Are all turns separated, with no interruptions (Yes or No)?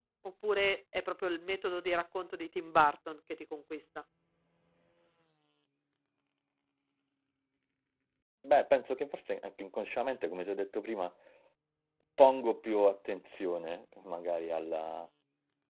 Yes